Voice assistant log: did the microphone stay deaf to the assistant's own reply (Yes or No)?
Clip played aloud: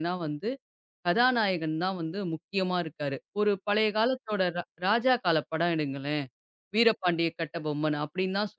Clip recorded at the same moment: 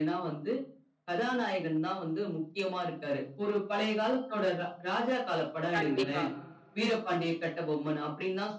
No